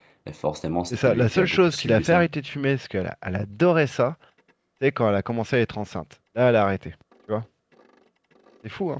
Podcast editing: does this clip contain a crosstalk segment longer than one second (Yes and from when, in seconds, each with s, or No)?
Yes, from 0.9 s